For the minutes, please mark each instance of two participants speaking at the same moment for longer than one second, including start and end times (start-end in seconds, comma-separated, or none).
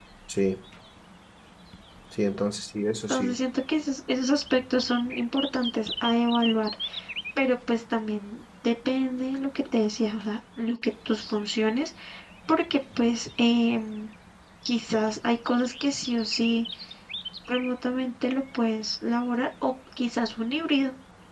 none